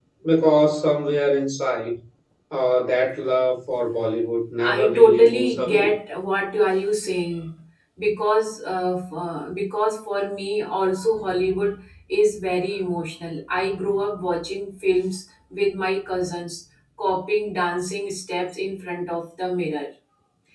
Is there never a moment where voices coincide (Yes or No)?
No